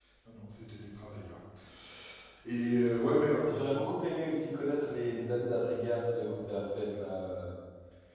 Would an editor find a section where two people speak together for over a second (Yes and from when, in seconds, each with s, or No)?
No